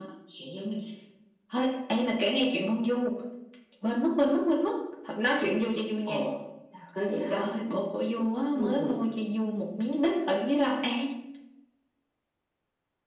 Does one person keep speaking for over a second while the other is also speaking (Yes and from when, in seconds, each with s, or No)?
No